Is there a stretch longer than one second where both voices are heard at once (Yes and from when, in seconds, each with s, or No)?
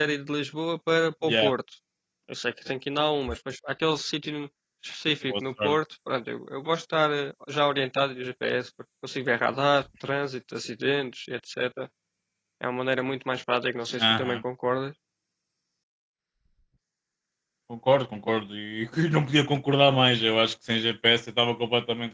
No